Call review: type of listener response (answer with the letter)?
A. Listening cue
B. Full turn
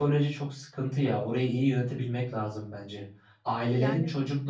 A